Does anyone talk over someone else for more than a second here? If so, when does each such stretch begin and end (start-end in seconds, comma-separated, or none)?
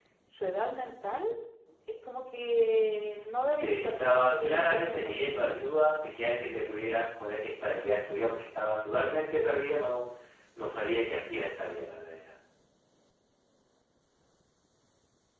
3.5-5.2